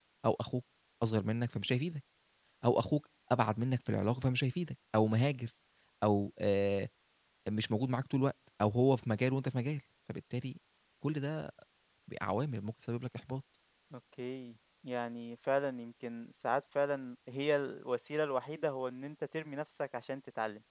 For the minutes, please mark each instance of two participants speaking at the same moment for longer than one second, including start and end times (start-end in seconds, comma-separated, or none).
none